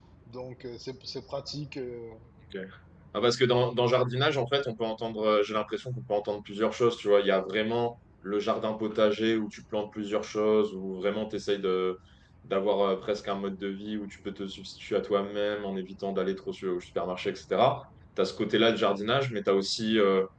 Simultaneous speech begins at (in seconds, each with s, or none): none